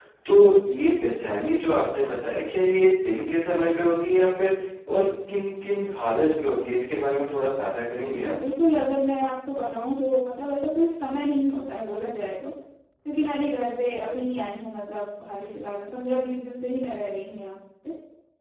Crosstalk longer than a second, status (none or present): none